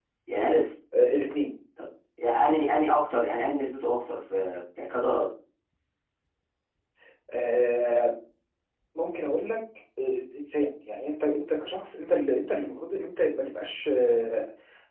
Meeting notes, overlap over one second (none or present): none